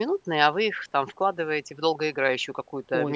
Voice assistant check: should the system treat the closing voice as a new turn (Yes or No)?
Yes